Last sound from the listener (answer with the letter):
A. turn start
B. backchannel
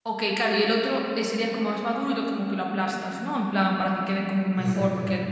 B